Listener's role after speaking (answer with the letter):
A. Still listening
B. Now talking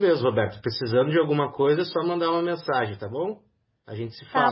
B